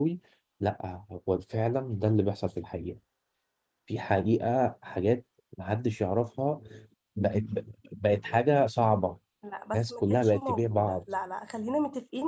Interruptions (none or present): present